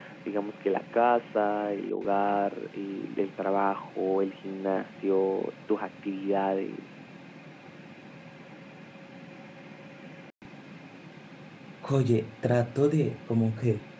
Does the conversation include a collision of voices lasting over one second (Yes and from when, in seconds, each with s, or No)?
No